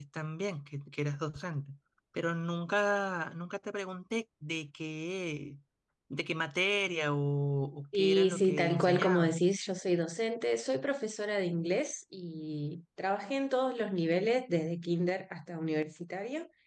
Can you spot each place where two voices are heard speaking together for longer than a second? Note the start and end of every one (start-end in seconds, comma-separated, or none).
7.9-9.3